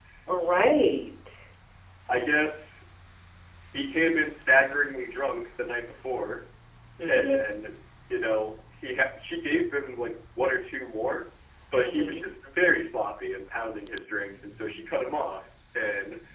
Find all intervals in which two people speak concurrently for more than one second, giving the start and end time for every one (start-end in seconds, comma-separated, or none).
none